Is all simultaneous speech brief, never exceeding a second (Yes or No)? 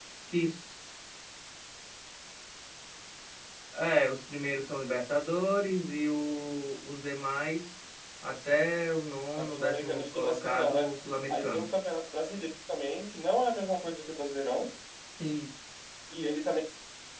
No